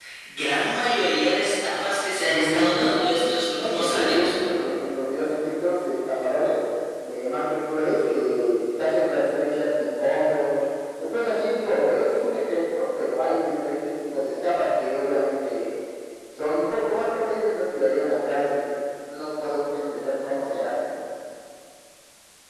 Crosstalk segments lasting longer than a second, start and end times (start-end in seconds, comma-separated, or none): 2.2-4.3